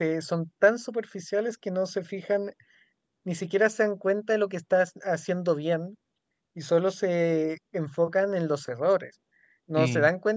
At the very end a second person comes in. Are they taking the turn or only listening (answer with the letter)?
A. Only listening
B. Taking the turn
A